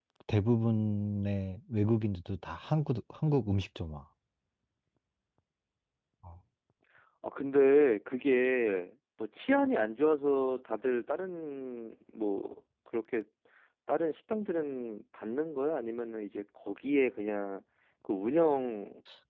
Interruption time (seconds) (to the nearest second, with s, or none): none